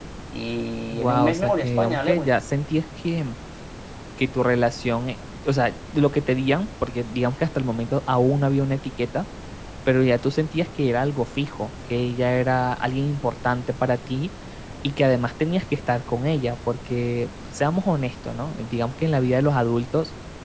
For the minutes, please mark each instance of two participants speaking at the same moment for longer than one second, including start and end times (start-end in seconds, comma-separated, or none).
0.9-2.3